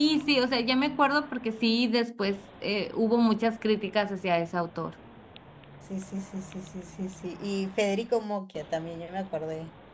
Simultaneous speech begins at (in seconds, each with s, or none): none